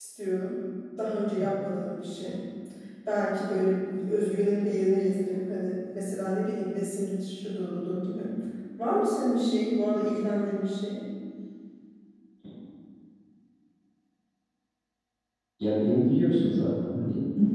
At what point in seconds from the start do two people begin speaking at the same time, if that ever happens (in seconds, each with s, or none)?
none